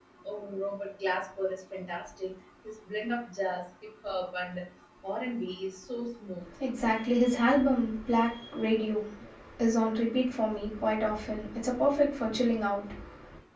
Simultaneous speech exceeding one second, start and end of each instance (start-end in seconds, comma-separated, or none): none